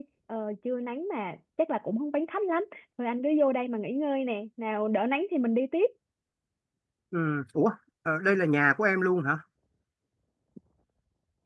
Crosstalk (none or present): none